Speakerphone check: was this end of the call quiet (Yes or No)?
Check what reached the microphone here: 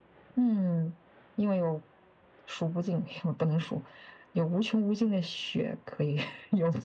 Yes